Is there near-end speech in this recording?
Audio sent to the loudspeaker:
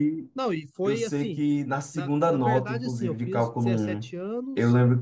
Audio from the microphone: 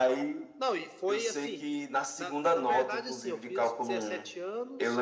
No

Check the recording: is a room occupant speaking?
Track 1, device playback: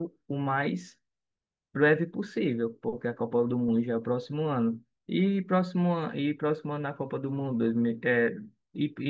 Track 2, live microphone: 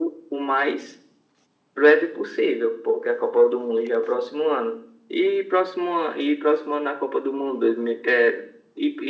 No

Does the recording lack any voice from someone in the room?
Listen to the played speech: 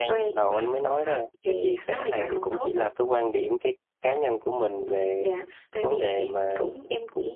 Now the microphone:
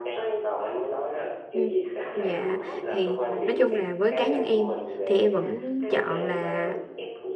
No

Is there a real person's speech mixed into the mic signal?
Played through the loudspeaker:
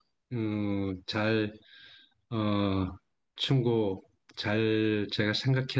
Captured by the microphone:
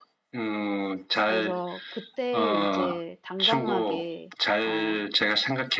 Yes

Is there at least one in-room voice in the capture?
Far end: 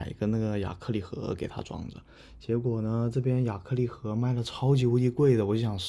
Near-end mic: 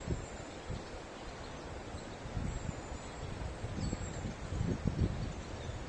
No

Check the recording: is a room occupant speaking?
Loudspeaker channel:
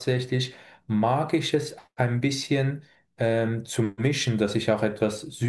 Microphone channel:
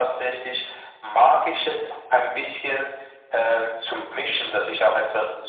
No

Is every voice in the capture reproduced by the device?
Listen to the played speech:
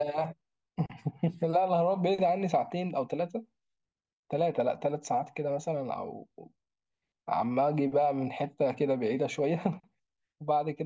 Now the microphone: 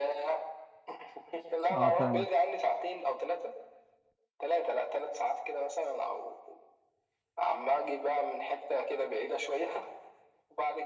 No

